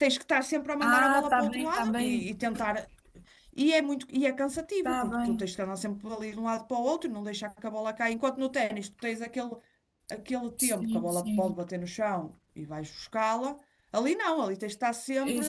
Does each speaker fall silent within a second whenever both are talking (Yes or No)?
No